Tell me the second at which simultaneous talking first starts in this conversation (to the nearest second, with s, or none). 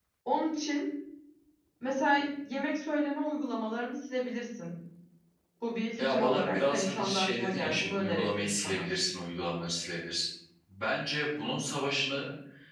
6 s